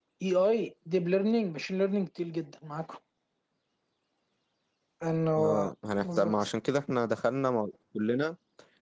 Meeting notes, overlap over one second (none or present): none